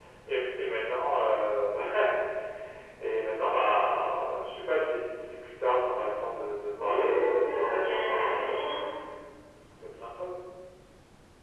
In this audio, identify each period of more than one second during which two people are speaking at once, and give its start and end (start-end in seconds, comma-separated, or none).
6.8-8.6